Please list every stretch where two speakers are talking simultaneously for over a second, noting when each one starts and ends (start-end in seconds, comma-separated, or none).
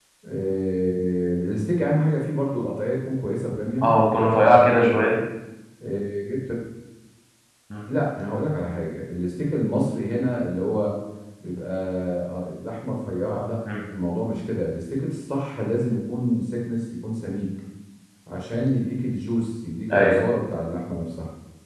3.8-5.2